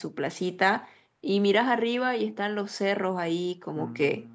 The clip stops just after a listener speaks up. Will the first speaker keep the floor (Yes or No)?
Yes